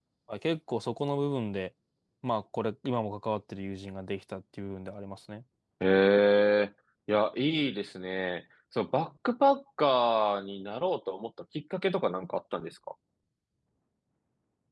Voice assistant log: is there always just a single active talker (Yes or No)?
Yes